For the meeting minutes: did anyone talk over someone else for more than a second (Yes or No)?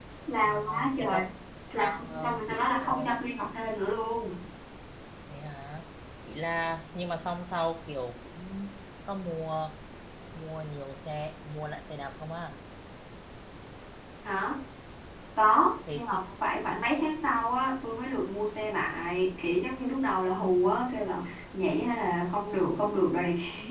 Yes